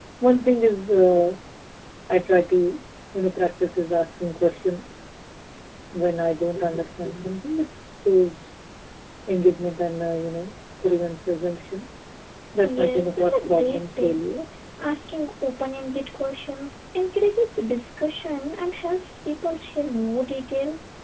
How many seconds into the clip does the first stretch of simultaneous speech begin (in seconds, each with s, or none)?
12.6 s